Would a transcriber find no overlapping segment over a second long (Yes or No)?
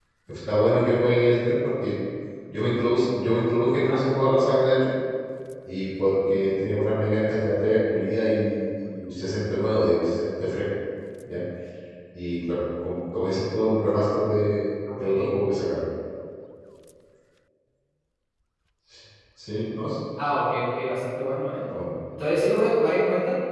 Yes